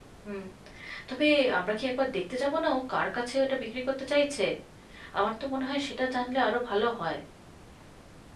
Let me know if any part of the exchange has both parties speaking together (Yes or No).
No